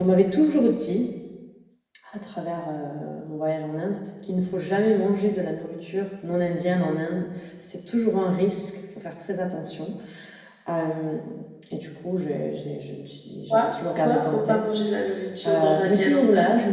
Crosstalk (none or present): present